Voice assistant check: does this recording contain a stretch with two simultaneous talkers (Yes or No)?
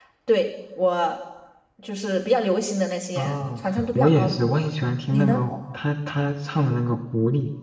Yes